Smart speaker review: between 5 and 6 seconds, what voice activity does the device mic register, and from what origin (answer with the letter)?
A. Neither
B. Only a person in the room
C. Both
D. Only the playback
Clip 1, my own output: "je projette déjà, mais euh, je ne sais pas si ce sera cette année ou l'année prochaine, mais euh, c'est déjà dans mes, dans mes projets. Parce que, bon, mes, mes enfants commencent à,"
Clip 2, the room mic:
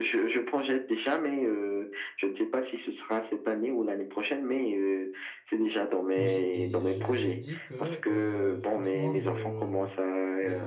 D